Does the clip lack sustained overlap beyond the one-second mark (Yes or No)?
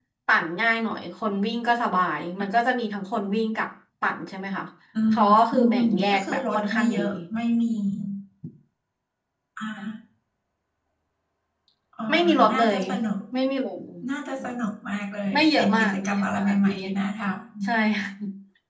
No